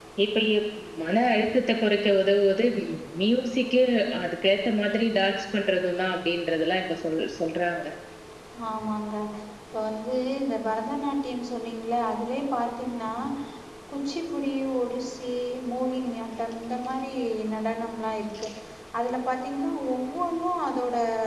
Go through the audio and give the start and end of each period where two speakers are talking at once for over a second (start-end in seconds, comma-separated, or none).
none